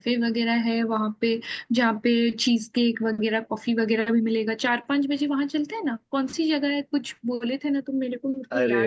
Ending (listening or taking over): taking over